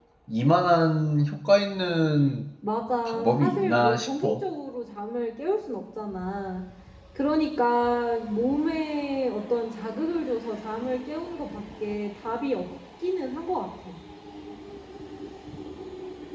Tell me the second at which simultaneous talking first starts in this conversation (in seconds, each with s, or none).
3.1 s